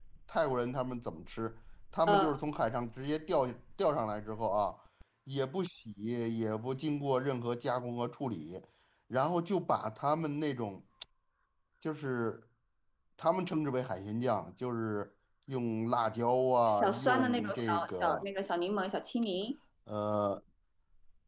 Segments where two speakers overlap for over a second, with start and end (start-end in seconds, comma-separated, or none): 16.7-18.2